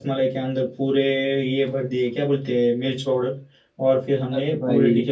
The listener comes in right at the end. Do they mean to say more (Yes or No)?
No